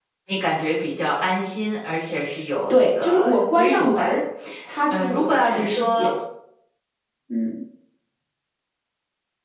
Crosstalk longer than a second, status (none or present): present